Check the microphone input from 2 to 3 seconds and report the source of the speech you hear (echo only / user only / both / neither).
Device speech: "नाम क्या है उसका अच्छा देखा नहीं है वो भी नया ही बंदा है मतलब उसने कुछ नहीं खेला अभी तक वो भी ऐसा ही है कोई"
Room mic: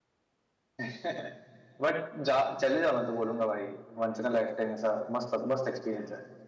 user only